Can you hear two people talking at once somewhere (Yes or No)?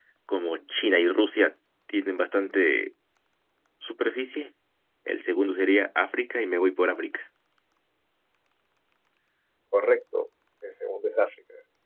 No